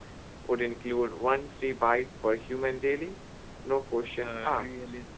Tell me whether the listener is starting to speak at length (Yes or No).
Yes